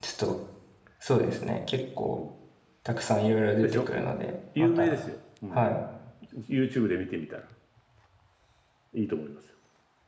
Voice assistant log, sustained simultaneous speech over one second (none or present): none